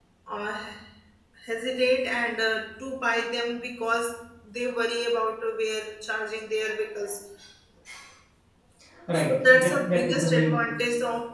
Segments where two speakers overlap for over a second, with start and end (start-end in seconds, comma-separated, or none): 9.1-10.7